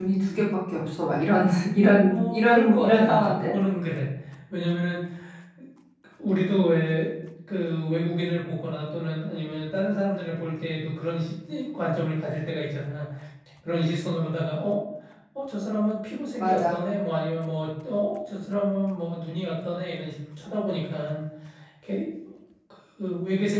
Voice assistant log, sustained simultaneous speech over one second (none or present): present